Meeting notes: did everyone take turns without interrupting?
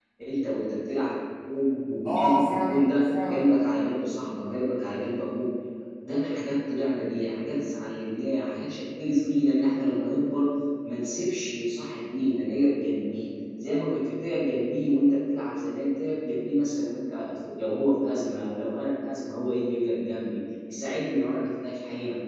No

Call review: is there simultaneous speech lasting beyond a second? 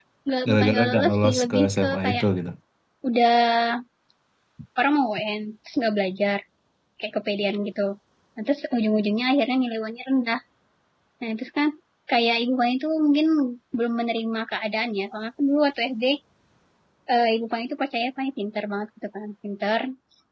Yes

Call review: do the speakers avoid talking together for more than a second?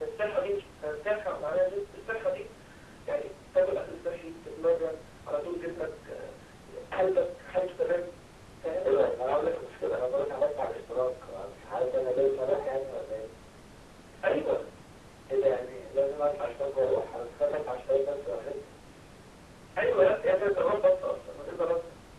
Yes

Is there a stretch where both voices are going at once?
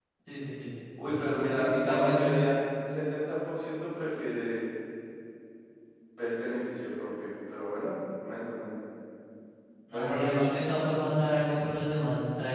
Yes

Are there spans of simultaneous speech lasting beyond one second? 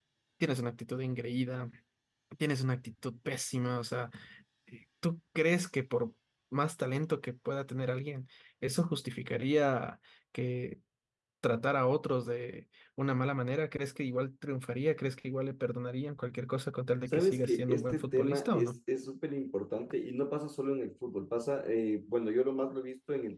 Yes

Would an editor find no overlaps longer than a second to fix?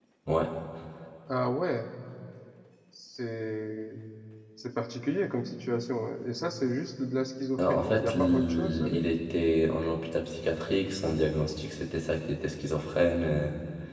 No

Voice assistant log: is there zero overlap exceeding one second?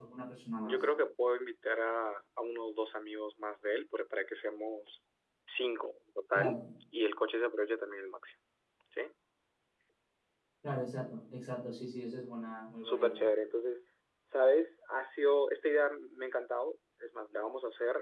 Yes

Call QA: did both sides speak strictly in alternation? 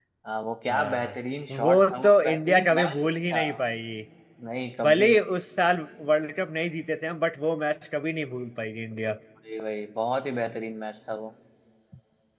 No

